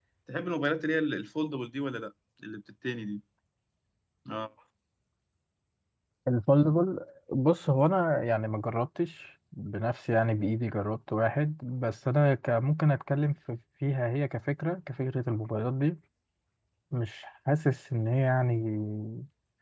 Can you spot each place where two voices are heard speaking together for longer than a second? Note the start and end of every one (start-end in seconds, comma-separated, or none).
none